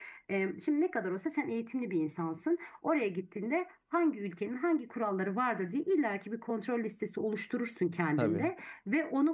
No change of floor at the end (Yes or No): Yes